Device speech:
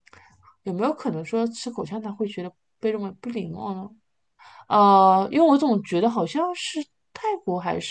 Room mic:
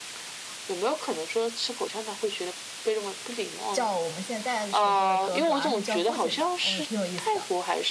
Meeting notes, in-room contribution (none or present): present